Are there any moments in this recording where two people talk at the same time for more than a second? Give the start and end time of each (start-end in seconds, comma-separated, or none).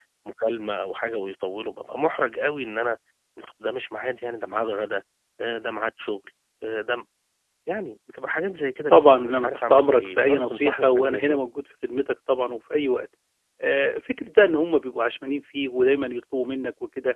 8.9-11.4